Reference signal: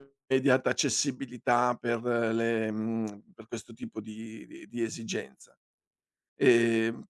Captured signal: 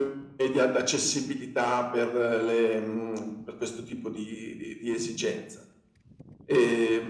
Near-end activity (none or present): none